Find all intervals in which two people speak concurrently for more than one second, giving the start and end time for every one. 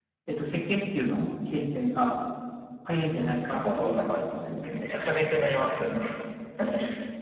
3.5-4.9

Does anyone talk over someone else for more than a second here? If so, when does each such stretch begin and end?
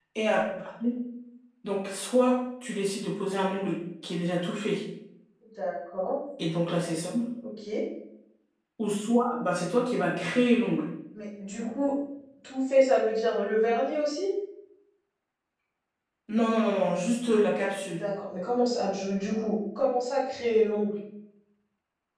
none

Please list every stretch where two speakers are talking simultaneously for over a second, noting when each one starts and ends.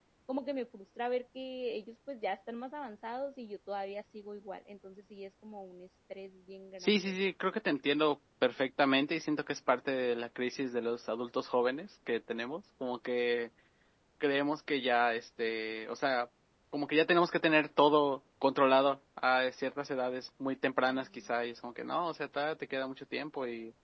none

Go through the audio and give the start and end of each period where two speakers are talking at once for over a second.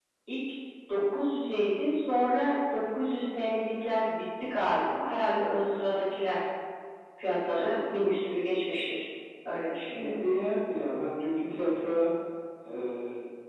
none

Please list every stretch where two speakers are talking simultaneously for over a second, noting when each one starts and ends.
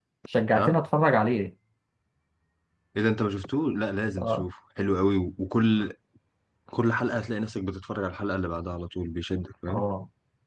none

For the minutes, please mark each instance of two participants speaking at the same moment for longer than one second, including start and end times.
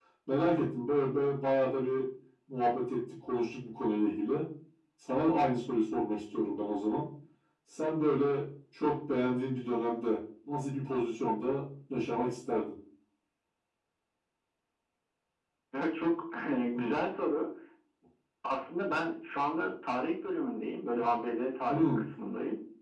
none

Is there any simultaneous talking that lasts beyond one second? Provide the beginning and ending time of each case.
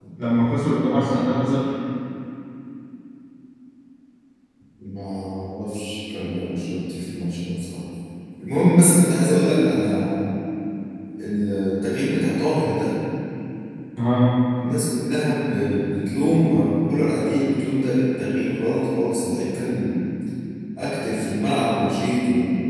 none

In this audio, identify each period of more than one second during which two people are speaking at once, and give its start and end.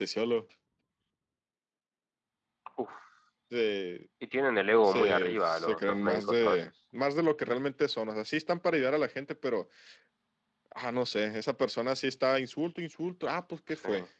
4.8-6.6

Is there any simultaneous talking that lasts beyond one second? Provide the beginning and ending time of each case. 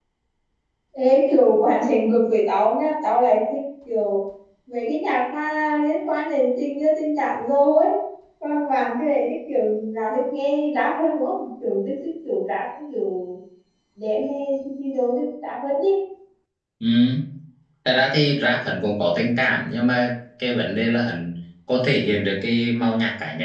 none

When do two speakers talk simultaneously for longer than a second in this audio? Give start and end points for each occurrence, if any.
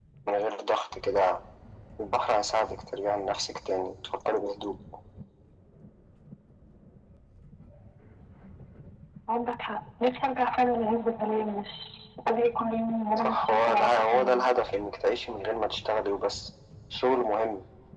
13.2-14.5

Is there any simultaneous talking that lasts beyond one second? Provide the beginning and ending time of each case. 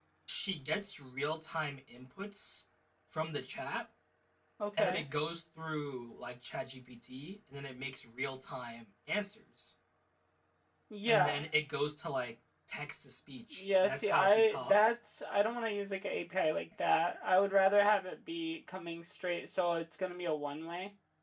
13.6-15.0

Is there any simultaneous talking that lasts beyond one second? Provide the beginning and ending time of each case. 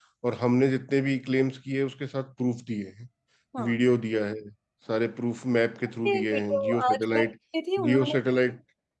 6.1-7.3

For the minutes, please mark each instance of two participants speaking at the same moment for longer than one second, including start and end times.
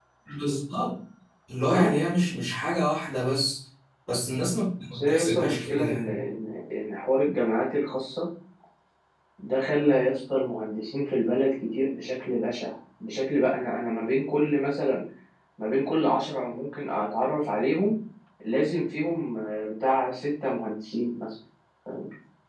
4.9-6.2

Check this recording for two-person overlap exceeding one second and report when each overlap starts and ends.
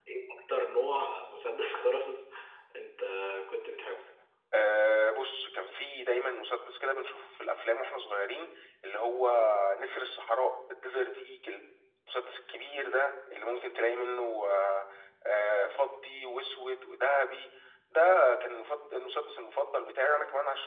none

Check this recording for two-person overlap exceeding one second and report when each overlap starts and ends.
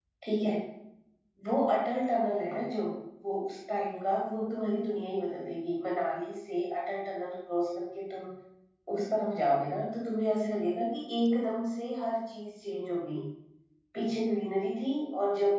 none

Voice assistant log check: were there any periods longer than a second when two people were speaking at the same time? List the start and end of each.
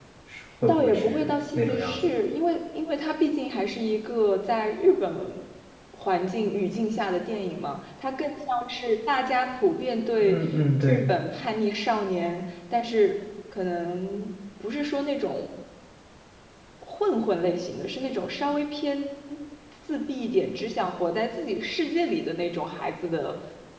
0.7-2.1

